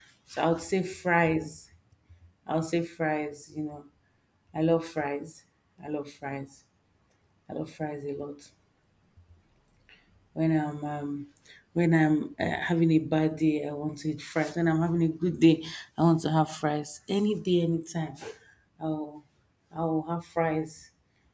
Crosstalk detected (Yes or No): No